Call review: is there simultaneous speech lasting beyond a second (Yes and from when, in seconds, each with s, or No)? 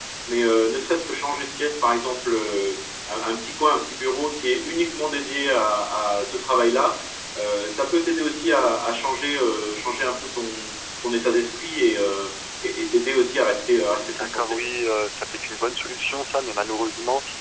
No